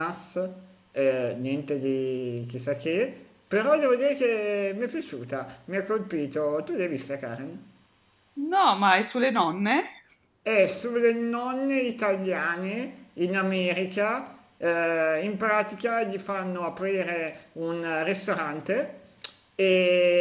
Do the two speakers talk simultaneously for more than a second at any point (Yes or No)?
No